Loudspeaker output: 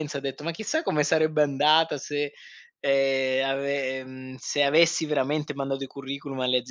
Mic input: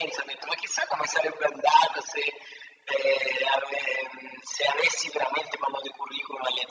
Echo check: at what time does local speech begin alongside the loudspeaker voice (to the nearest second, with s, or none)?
none